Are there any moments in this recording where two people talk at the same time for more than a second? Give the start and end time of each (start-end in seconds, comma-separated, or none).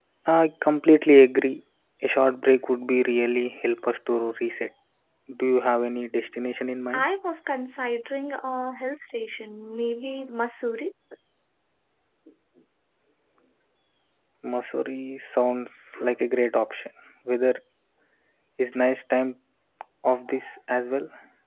none